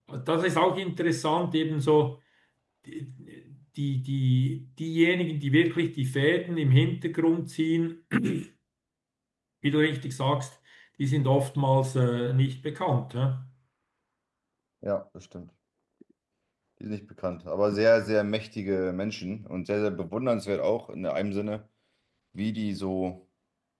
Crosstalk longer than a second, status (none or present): none